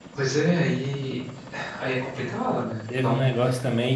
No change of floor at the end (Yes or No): No